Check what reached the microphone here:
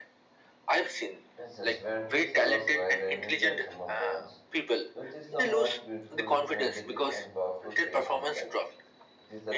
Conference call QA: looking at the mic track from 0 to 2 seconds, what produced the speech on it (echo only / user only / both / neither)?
both